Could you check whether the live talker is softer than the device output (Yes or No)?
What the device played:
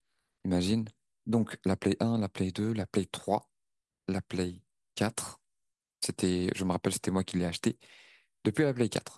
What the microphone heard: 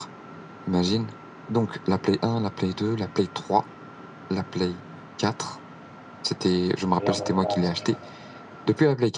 Yes